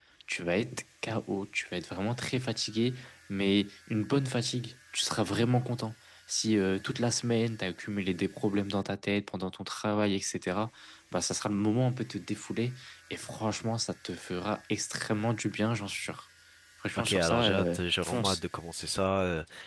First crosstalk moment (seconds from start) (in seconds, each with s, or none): 17.0 s